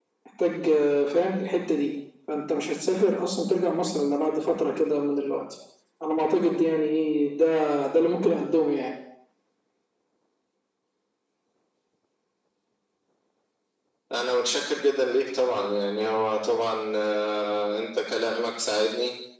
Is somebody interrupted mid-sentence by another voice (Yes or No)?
No